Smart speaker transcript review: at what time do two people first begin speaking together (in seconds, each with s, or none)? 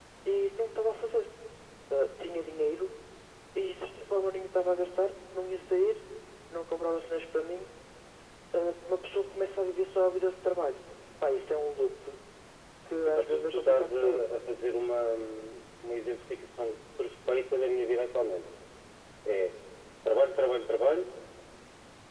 13.1 s